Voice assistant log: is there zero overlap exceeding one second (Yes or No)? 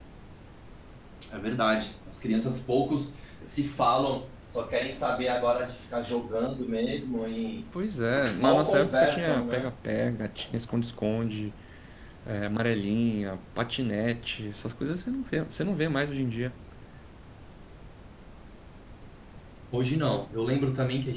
No